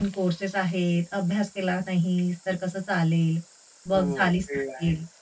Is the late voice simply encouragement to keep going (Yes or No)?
No